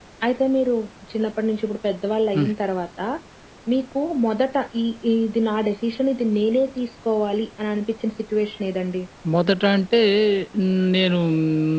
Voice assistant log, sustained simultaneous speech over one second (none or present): none